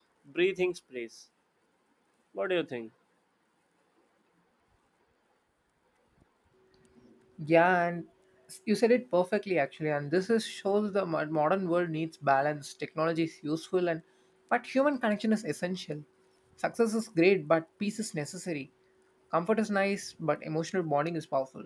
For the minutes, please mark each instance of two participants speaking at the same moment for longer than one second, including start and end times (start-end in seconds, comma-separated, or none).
none